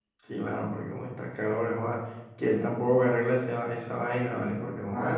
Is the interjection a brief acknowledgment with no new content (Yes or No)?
No